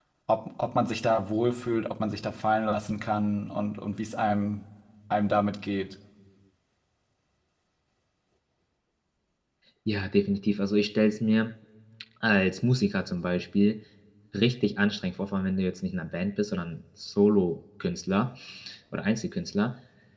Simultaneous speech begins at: none

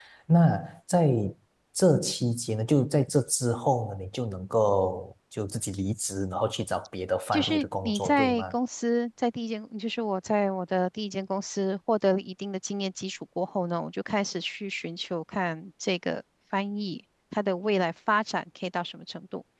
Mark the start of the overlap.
7.3 s

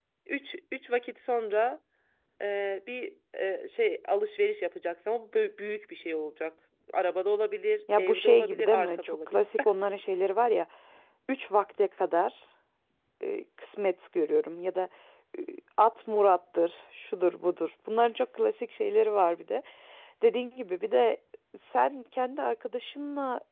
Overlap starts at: 7.9 s

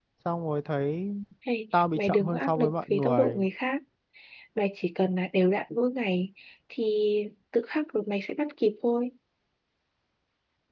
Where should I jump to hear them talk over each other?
2.0 s

